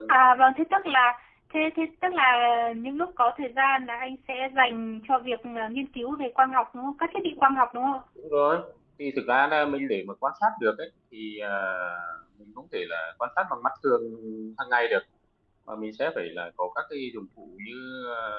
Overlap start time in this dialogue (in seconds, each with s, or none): none